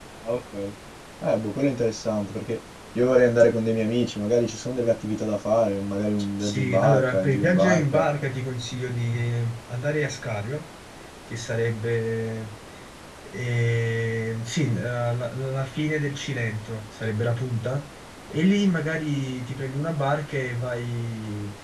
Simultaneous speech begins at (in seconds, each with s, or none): 6.4 s